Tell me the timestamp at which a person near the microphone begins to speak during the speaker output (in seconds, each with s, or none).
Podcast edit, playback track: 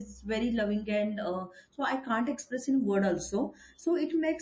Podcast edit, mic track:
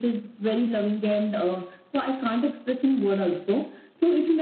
none